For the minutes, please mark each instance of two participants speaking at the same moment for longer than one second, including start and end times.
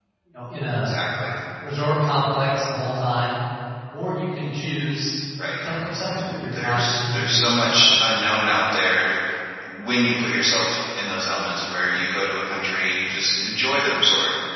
6.1-8.1

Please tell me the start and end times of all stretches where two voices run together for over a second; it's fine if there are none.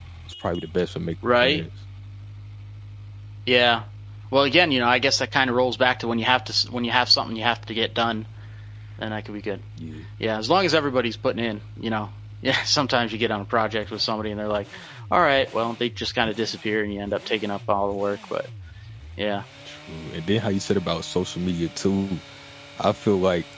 none

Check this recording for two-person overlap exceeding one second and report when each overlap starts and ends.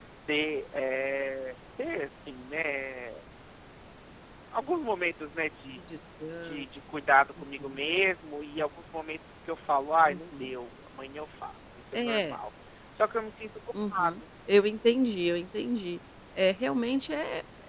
none

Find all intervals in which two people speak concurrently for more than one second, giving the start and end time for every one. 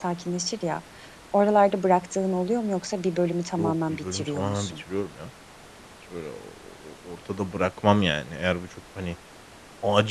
3.6-4.8

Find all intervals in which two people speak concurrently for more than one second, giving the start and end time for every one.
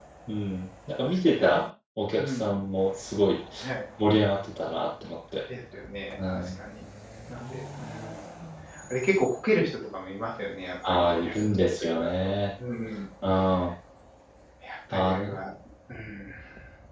10.9-12.3

